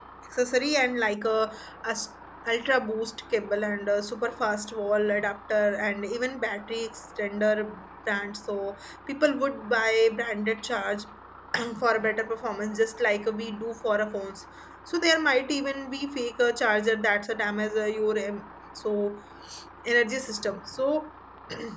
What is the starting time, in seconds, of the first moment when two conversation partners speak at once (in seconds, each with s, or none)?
none